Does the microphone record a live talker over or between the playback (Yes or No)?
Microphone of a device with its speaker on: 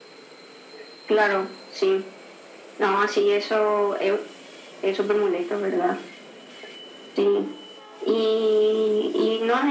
No